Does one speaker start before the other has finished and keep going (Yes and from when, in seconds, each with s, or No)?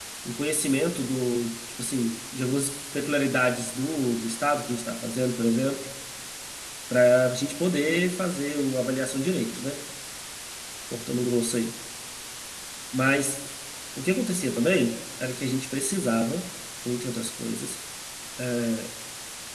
No